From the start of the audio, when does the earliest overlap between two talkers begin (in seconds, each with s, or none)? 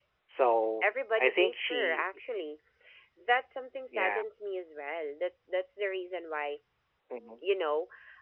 0.8 s